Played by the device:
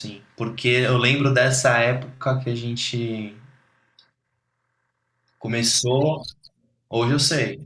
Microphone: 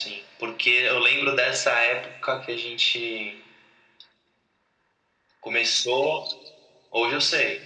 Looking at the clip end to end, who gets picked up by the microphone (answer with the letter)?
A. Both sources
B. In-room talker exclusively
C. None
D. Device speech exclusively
D